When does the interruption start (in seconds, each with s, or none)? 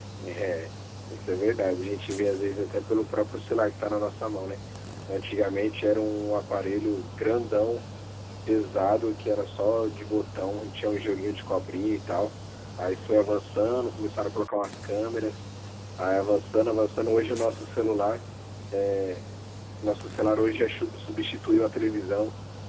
none